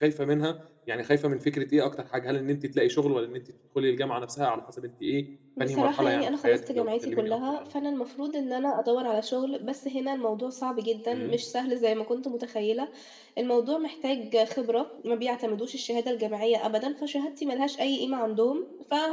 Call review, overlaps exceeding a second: present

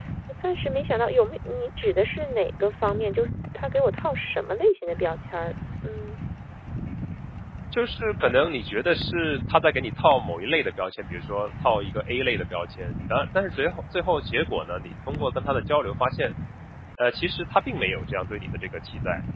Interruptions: none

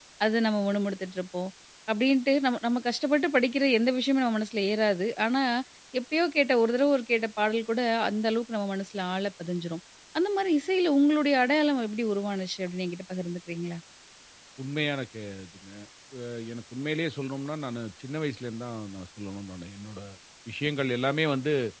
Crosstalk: none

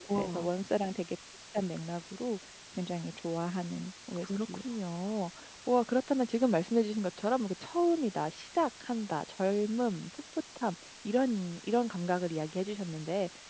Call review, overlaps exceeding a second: none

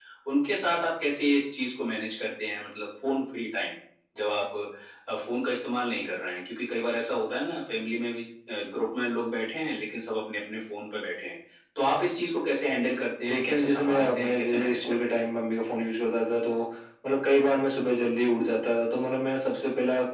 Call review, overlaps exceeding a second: present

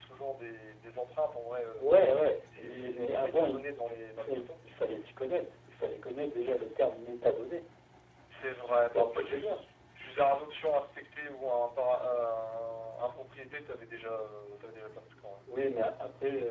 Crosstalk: present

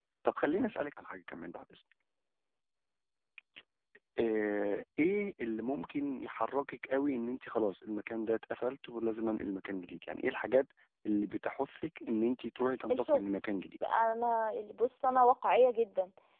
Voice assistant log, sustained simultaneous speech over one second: none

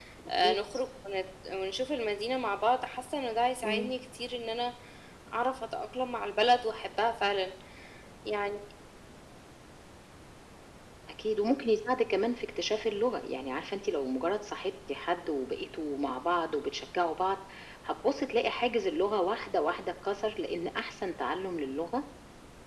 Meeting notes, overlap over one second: none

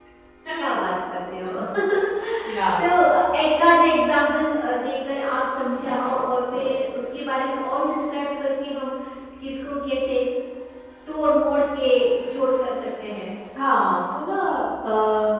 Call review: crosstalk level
none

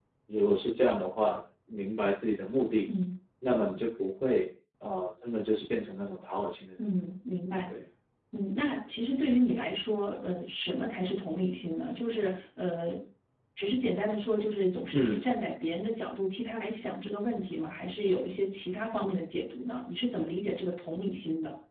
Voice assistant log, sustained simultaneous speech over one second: none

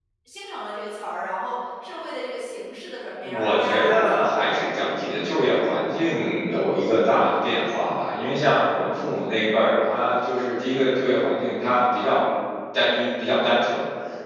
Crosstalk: present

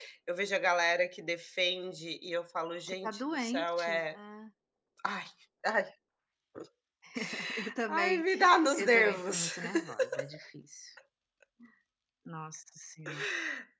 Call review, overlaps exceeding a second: present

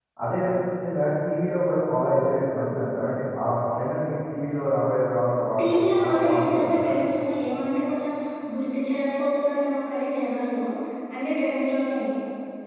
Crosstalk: present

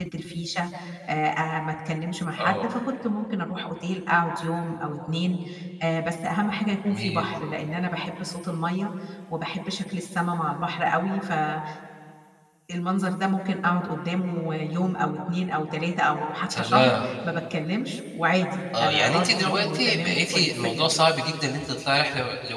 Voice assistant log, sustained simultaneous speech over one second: present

